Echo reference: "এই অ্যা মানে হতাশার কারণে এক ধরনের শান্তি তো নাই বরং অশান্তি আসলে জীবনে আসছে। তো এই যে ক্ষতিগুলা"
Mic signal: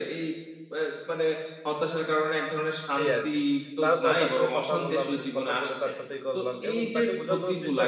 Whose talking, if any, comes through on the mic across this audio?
both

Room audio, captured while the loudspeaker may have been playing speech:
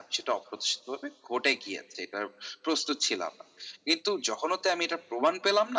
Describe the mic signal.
echo only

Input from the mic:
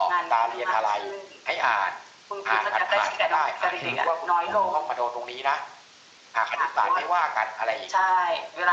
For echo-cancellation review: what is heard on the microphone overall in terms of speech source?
both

